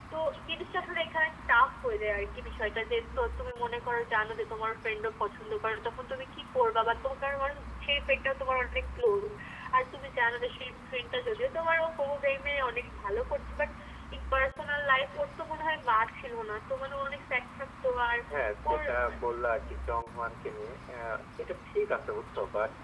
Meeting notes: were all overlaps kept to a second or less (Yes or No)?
Yes